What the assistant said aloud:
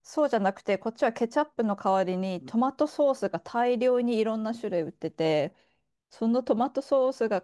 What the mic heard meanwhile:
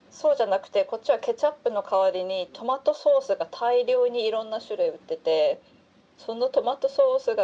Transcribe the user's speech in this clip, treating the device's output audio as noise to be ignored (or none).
none